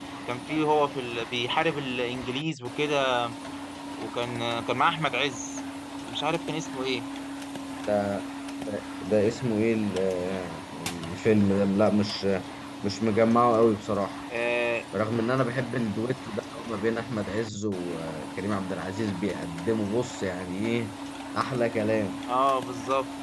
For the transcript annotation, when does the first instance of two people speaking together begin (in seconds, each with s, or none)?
none